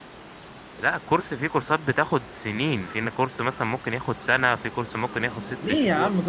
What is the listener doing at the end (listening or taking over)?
taking over